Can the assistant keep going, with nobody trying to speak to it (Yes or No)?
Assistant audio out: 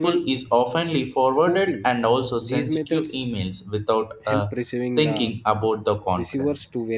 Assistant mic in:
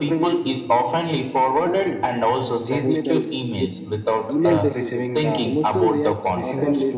No